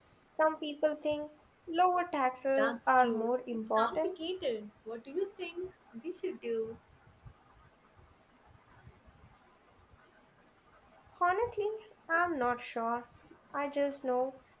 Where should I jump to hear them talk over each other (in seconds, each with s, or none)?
2.6 s